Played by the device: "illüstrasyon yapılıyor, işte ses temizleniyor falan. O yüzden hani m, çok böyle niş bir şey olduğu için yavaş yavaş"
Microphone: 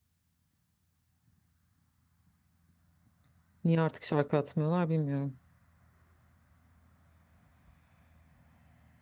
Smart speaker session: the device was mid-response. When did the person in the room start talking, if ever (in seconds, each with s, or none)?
3.6 s